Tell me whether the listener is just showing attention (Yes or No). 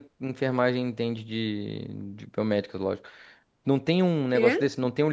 Yes